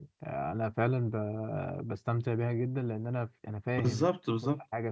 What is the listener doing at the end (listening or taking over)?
taking over